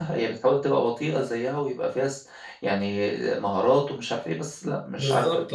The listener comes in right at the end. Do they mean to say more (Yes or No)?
Yes